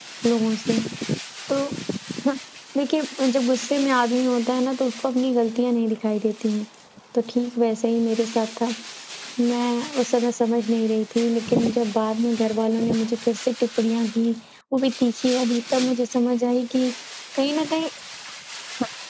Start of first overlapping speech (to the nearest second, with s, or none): none